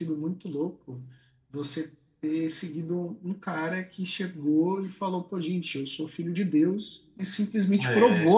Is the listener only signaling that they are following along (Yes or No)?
Yes